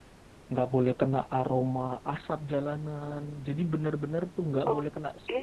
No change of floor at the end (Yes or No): Yes